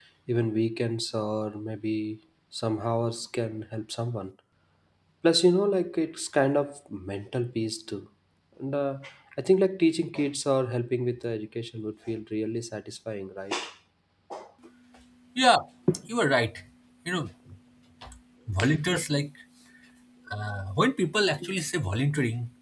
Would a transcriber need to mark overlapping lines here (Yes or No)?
No